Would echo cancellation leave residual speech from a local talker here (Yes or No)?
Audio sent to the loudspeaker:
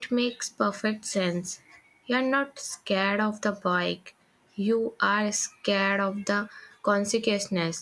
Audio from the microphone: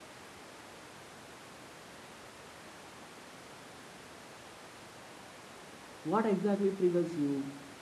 Yes